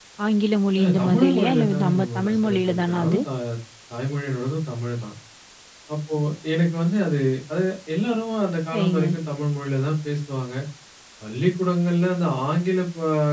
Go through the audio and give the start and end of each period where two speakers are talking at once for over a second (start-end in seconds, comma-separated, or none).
0.8-3.2